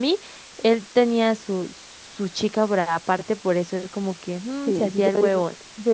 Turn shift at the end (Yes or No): Yes